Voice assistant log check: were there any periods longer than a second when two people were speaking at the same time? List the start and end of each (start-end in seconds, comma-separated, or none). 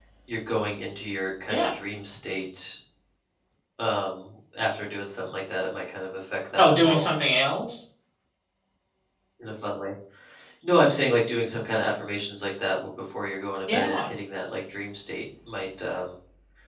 none